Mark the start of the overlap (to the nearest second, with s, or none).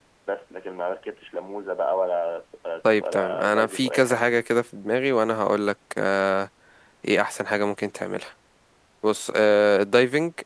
3 s